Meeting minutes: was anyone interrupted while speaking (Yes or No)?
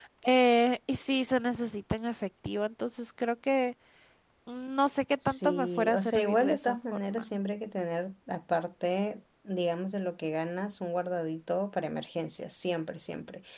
Yes